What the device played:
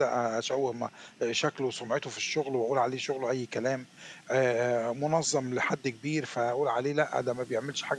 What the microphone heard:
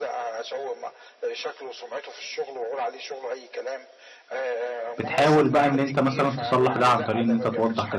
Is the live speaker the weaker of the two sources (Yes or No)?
No